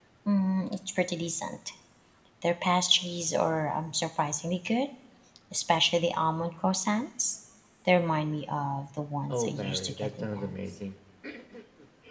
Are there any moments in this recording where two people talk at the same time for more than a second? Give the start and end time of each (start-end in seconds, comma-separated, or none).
9.3-10.6